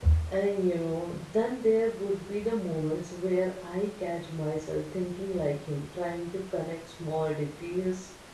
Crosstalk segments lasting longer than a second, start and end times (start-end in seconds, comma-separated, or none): none